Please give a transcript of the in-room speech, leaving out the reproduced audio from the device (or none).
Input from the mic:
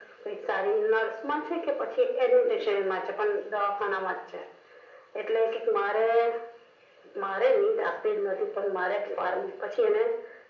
none